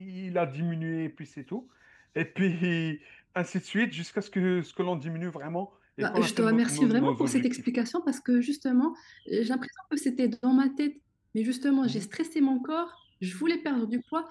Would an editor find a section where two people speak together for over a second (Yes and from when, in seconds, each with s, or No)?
Yes, from 6.0 s